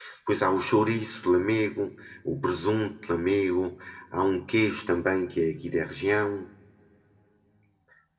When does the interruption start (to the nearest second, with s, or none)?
none